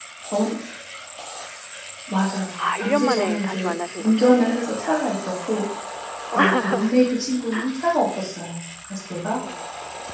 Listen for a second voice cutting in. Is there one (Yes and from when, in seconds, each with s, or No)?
Yes, from 2.6 s